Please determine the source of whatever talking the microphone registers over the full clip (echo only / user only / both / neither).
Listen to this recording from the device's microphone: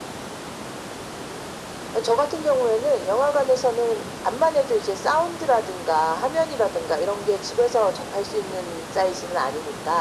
echo only